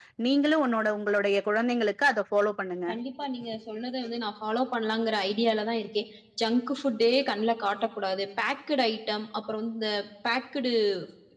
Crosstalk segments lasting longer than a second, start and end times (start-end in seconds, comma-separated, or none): none